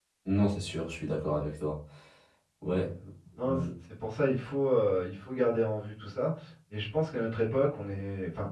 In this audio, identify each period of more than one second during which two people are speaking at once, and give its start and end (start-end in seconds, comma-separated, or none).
none